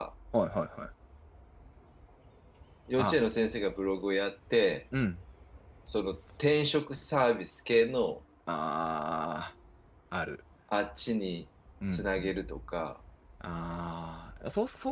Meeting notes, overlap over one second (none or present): none